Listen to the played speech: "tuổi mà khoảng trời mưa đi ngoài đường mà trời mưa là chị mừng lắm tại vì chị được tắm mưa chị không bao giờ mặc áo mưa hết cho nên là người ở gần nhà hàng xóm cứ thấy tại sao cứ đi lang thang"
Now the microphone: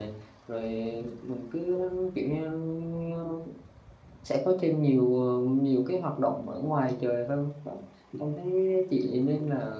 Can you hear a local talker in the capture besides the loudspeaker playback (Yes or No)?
Yes